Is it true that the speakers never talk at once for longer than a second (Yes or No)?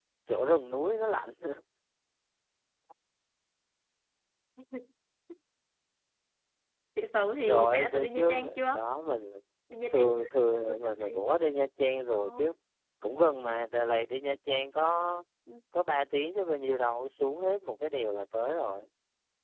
No